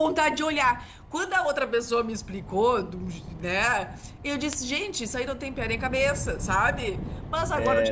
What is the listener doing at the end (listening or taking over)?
listening